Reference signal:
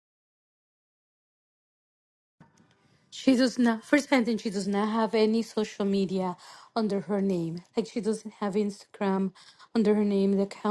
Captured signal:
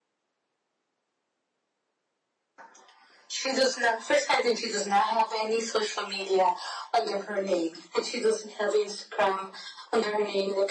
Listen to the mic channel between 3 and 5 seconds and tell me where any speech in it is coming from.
echo only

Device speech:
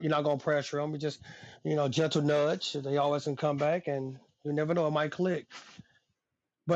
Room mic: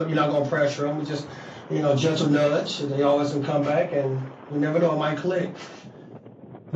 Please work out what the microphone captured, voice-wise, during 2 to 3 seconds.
echo only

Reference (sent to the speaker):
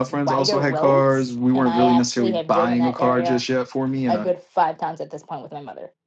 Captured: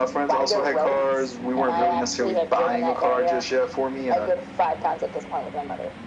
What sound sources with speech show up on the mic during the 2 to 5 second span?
echo only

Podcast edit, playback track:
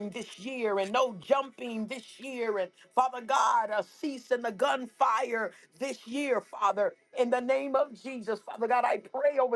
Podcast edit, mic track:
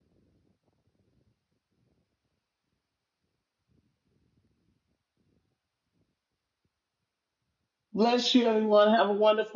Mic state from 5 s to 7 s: neither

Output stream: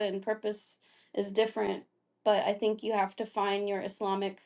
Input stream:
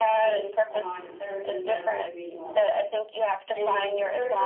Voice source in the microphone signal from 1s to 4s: both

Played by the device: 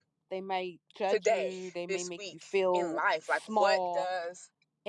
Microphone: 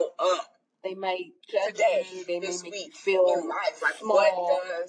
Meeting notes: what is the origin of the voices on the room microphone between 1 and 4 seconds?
echo only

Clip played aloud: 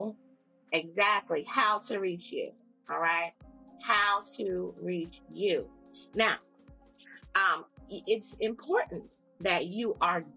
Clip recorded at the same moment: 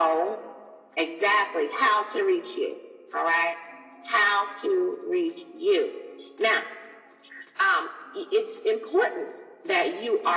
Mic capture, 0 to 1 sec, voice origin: echo only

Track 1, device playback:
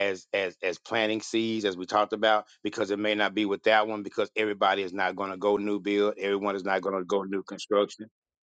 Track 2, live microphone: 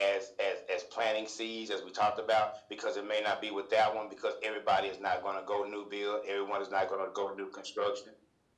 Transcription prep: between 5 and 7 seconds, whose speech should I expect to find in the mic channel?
echo only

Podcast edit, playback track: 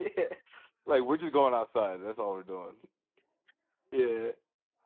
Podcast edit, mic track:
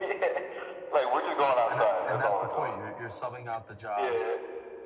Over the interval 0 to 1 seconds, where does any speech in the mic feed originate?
echo only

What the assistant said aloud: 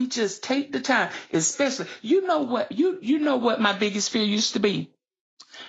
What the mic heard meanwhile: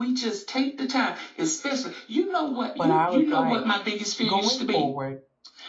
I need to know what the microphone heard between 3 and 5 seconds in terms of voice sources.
both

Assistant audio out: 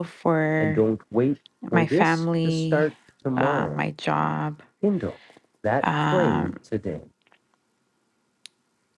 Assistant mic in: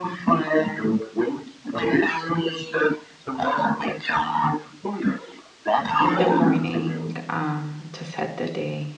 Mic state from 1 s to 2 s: echo only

